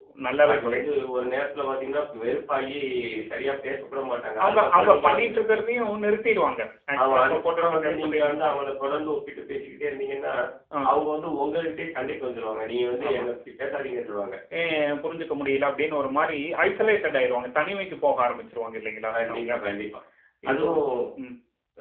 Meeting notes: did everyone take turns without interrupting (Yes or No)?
No